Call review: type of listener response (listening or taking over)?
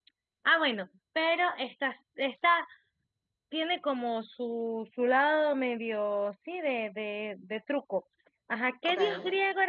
listening